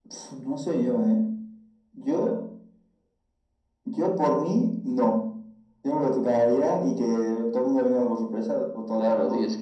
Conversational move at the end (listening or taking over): taking over